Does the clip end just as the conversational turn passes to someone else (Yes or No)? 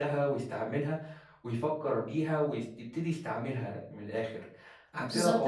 Yes